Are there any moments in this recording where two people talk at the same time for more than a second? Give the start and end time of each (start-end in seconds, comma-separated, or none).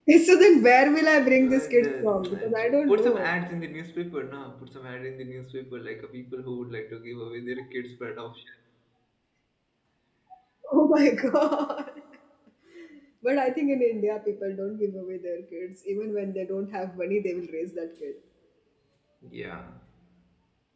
1.4-3.3